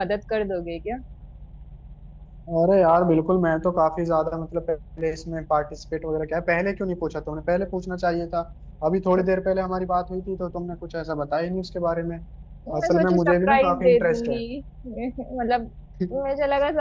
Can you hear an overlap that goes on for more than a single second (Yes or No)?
Yes